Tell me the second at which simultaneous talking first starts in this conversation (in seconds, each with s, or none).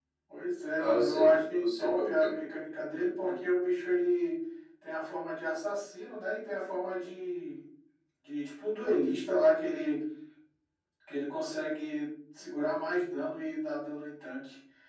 0.8 s